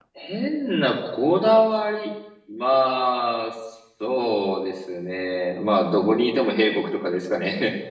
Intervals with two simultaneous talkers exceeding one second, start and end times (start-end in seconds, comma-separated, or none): none